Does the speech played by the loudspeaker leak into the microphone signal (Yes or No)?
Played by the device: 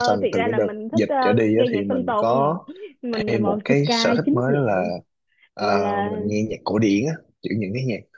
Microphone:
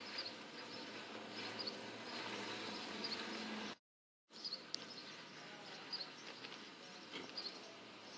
No